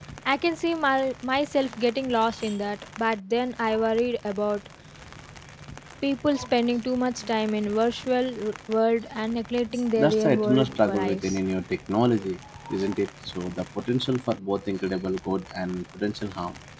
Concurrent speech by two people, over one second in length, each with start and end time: 10.0-11.4

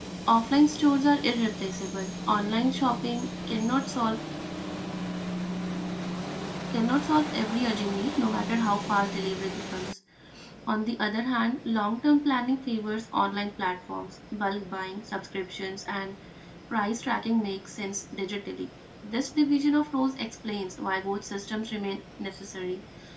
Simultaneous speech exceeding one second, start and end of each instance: none

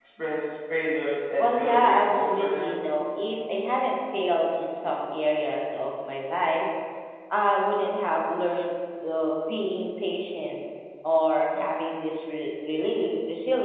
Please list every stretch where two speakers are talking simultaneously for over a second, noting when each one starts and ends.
1.4-2.7

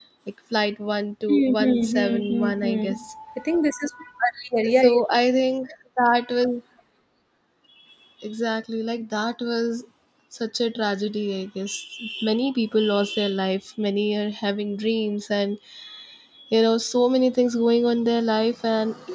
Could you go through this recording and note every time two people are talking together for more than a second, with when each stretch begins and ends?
1.3-2.9

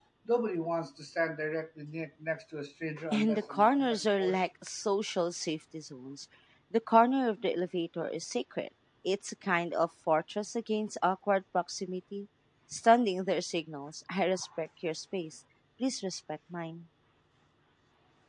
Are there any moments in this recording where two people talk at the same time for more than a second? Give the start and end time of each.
3.1-4.4

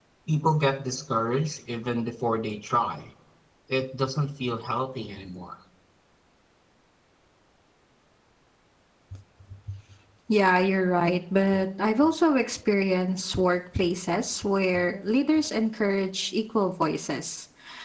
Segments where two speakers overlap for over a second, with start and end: none

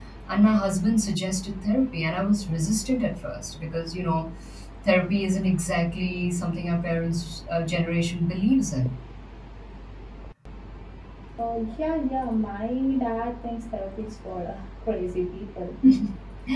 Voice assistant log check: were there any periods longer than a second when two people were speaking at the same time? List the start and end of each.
none

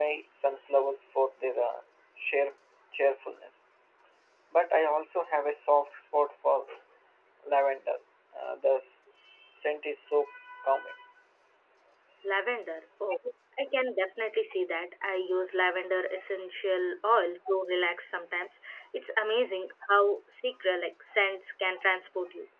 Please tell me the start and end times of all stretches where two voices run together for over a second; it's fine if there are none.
none

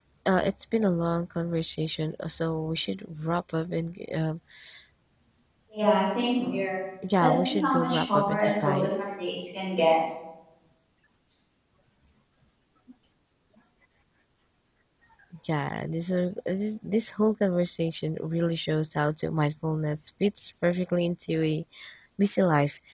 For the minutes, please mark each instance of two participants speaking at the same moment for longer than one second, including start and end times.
7.2-8.9

